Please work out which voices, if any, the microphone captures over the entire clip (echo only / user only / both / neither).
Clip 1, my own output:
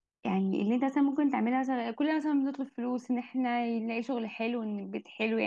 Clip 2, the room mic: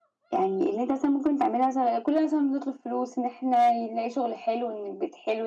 echo only